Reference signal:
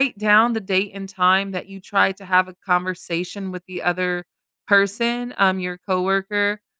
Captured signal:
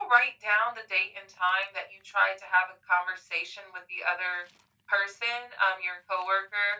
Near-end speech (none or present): none